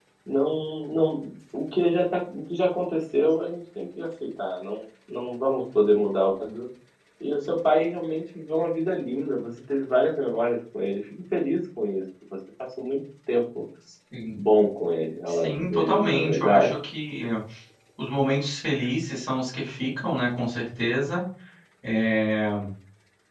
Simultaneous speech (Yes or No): Yes